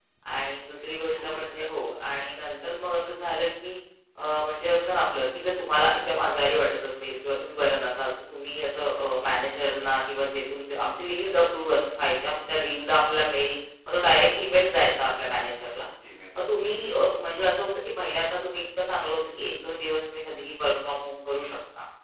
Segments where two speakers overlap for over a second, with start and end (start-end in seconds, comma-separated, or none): none